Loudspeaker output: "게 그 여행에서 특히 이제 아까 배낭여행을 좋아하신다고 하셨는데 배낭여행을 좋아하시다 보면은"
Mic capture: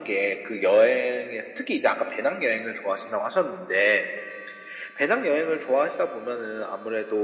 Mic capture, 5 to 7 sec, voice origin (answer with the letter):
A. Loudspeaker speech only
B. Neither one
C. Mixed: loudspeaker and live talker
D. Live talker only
A